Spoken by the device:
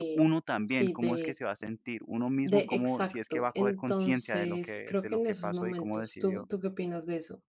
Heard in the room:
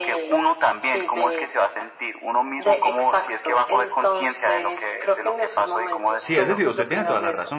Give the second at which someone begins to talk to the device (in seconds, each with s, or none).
6.2 s